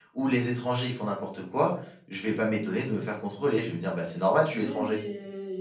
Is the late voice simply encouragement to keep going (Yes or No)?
No